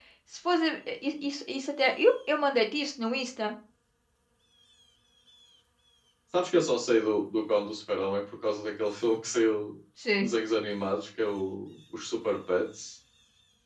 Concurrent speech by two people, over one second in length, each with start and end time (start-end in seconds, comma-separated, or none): none